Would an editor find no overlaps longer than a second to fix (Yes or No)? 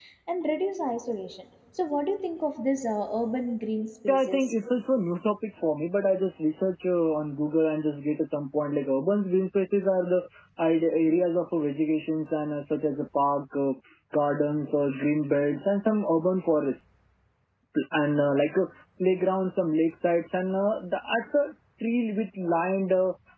Yes